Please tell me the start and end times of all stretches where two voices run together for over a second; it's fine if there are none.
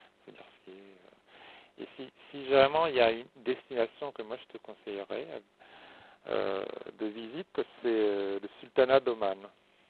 none

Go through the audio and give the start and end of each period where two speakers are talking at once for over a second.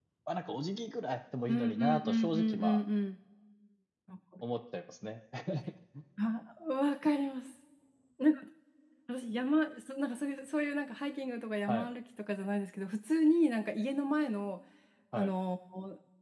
1.5-2.8

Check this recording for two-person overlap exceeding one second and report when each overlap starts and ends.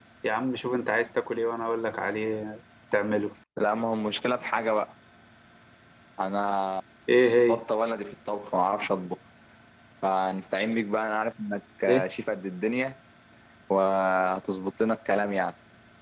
none

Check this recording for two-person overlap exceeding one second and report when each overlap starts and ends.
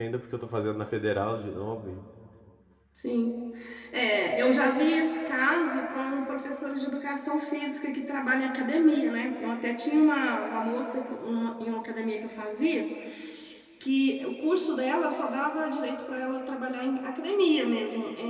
none

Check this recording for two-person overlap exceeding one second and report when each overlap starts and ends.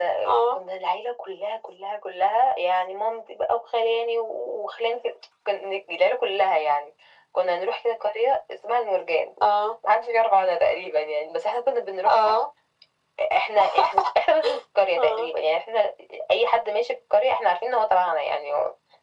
none

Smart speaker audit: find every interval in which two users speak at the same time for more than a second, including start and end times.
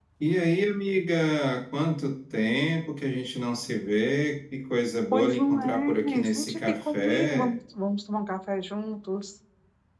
5.1-7.6

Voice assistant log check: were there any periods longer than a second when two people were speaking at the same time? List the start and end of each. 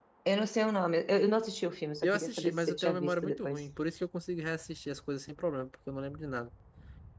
2.0-3.6

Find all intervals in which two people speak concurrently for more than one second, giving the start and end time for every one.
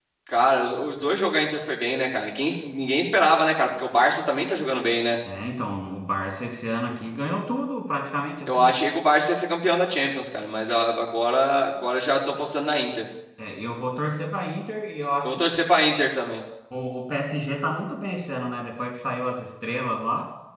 none

